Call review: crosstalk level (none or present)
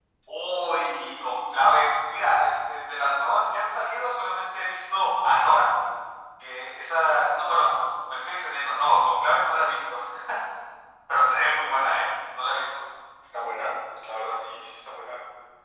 none